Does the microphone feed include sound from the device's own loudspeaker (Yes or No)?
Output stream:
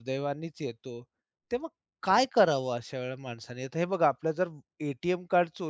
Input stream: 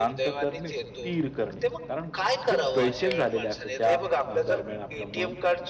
Yes